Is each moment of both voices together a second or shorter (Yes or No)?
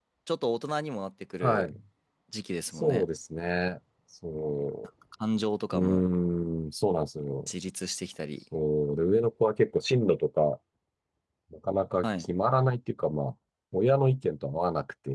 Yes